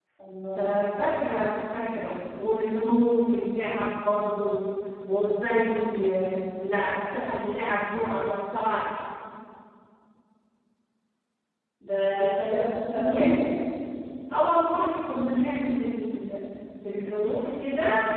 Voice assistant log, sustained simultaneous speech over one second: present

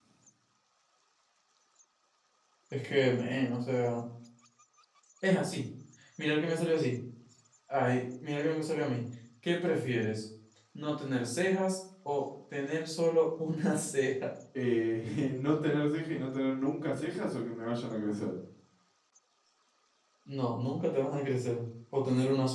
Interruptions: none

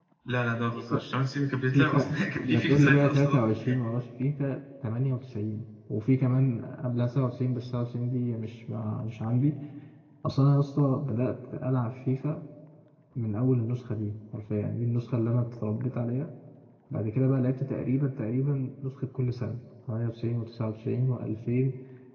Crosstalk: present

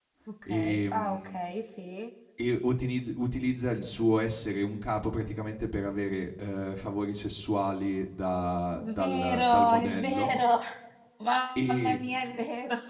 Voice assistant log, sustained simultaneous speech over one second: present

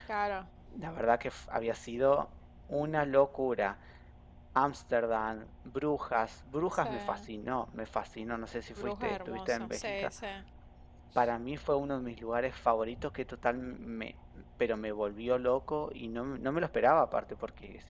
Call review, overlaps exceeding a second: present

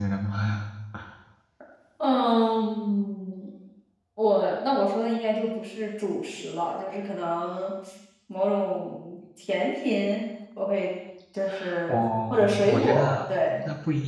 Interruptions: present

